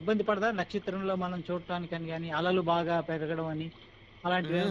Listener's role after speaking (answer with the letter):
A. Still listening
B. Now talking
B